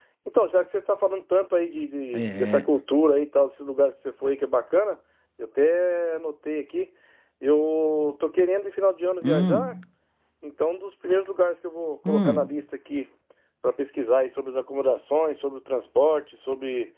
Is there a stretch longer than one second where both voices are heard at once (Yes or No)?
No